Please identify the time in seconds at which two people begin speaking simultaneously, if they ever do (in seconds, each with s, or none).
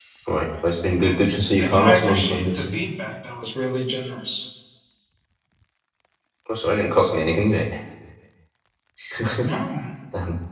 0.7 s